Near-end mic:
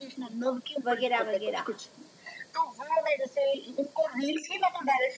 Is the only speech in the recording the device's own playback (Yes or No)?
No